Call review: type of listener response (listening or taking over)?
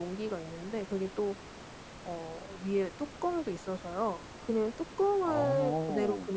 listening